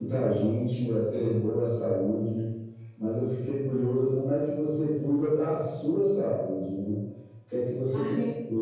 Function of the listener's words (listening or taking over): listening